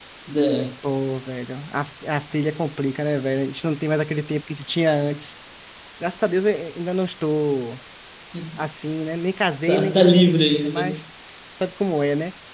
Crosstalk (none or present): present